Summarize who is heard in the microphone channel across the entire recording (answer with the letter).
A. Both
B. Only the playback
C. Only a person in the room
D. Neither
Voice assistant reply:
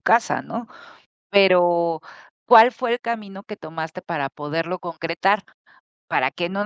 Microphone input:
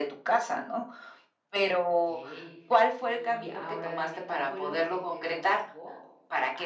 A